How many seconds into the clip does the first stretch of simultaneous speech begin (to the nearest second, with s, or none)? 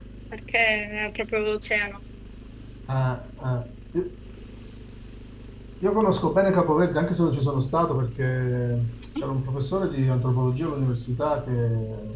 none